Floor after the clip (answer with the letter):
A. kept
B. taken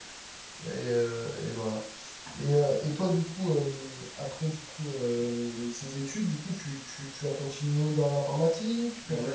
B